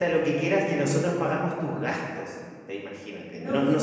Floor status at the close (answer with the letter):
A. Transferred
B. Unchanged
B